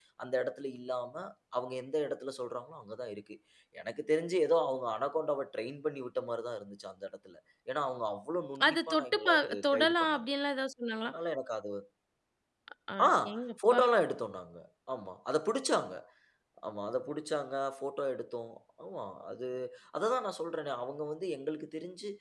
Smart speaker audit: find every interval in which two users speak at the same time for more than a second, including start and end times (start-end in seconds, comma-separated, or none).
8.7-10.2